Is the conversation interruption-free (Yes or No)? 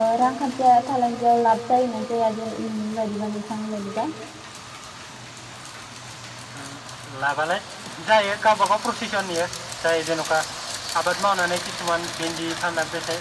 Yes